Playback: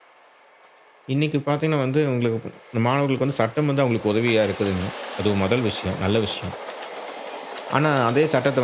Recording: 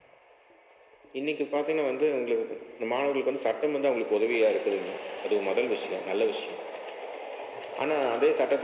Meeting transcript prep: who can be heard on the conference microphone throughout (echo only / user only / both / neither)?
echo only